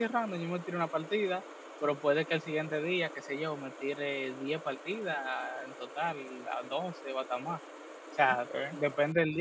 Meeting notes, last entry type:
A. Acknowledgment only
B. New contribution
A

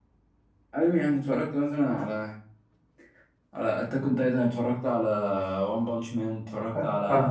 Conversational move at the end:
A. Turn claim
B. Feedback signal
A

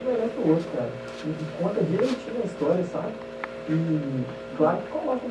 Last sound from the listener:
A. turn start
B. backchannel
B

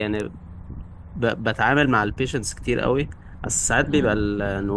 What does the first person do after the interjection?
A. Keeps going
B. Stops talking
A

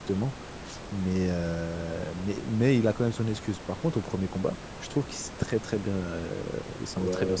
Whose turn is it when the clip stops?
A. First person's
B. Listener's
B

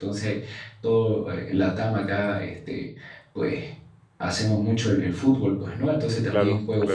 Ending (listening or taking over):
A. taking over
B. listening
B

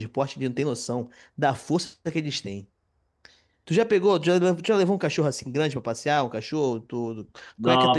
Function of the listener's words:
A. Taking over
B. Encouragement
A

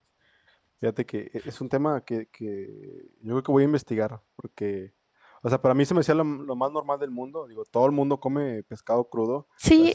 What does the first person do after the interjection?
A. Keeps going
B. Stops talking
A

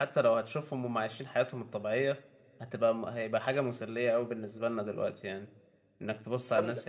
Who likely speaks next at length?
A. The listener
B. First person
B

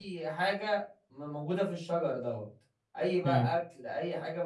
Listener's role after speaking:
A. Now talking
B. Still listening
B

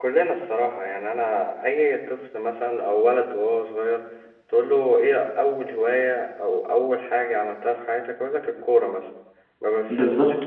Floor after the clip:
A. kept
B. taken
A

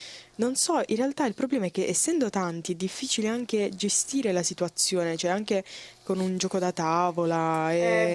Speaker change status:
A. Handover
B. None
A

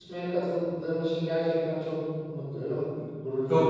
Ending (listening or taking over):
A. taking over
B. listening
A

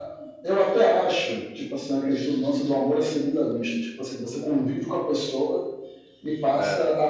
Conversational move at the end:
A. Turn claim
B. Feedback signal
B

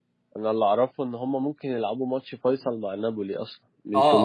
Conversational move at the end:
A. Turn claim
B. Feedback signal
A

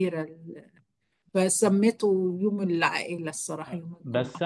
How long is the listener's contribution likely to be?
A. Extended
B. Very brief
A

